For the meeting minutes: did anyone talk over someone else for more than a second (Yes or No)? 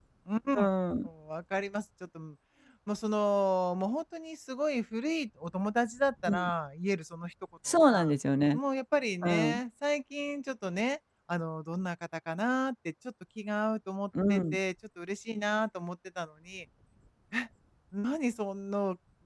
No